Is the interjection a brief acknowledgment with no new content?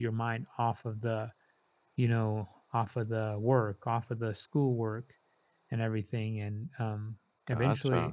Yes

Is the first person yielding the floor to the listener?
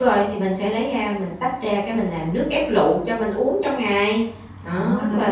Yes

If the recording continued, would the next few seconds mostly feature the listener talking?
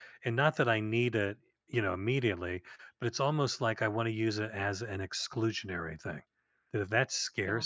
No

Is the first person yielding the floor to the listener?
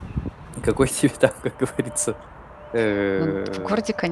Yes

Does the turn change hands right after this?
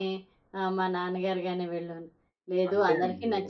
No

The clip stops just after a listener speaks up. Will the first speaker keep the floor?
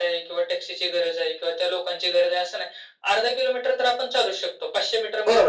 No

